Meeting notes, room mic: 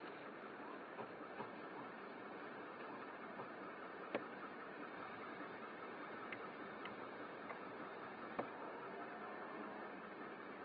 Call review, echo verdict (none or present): none